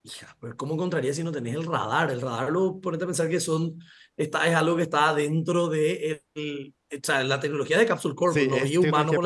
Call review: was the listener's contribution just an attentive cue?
No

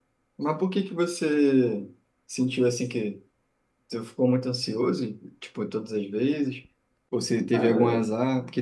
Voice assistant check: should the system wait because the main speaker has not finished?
Yes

